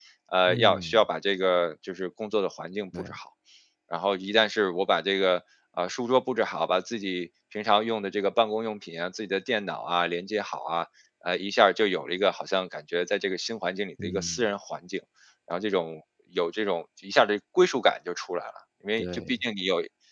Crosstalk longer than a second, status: none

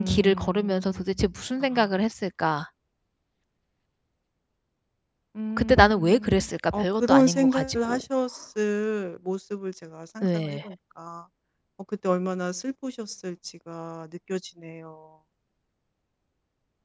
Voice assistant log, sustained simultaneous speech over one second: present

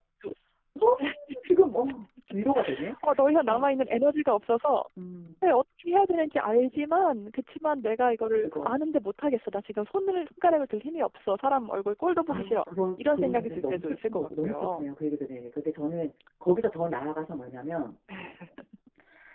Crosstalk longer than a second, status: present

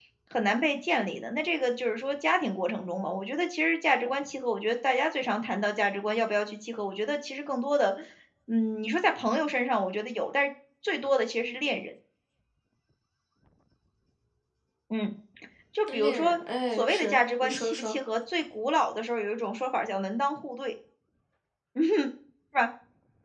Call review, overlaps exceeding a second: present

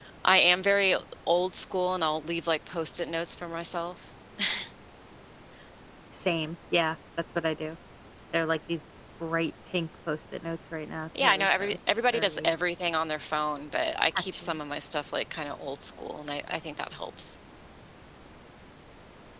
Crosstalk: present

